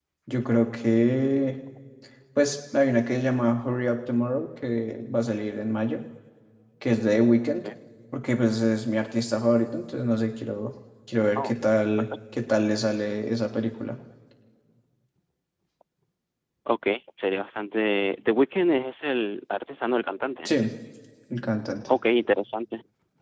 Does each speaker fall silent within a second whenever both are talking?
Yes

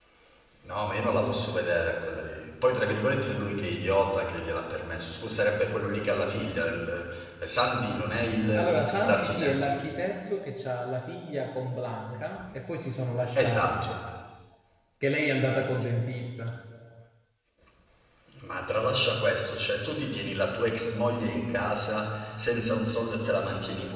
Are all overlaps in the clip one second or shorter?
No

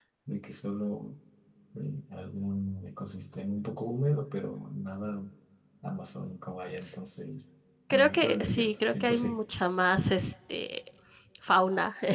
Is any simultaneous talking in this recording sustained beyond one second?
Yes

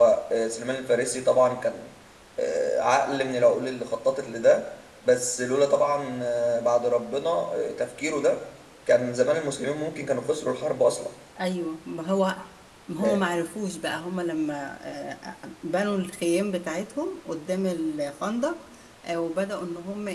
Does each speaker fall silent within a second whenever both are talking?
Yes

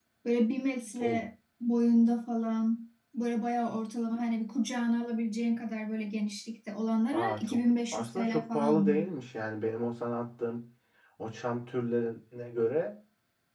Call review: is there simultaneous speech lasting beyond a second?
Yes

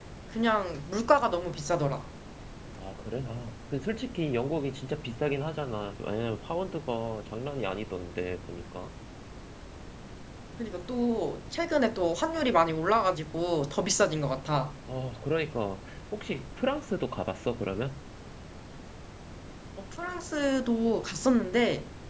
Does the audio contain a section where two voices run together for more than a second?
No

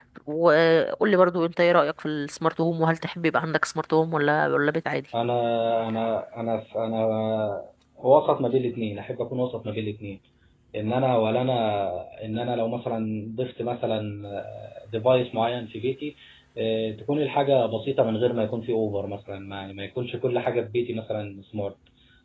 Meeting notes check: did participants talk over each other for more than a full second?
No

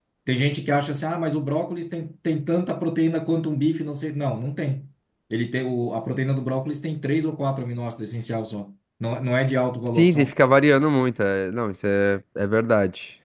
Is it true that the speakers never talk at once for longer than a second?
Yes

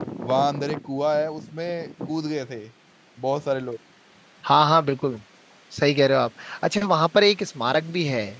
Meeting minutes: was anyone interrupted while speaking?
No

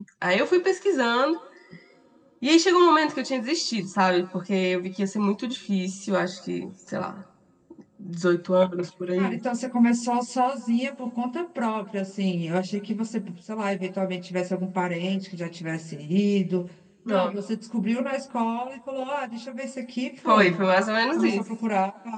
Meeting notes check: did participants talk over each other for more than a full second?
No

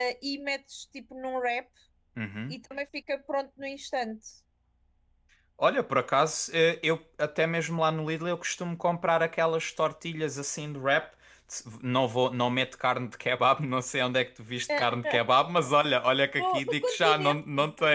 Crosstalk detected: Yes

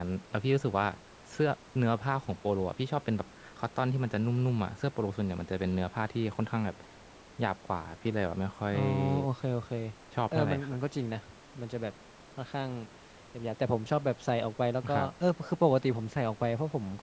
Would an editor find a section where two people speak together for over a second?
No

